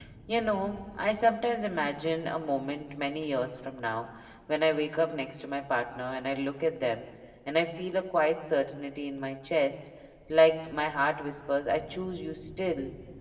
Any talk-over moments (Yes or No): No